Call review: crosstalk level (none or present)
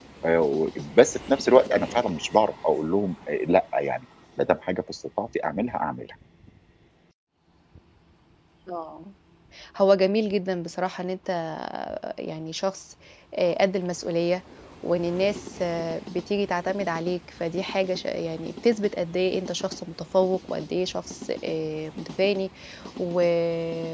none